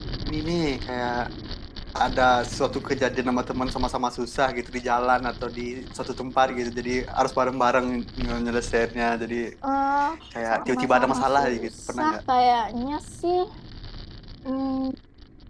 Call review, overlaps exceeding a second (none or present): present